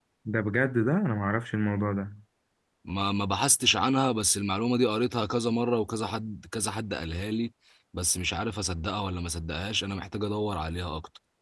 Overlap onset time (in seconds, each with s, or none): none